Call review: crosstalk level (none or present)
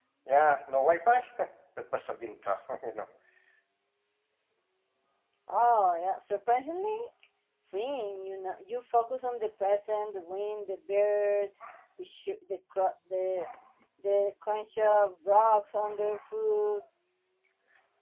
none